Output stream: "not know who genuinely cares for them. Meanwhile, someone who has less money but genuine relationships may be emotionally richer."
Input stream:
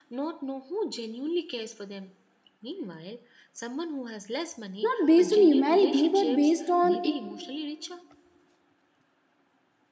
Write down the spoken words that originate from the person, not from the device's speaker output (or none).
not based on humanity but based on in-